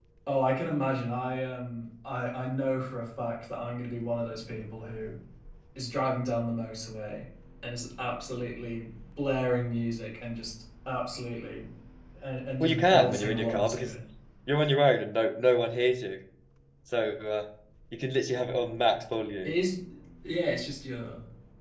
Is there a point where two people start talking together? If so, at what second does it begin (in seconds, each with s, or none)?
12.6 s